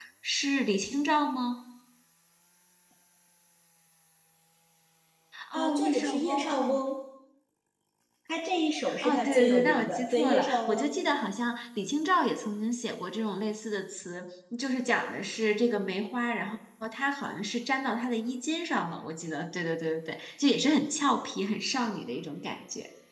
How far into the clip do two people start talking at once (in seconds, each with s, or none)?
5.5 s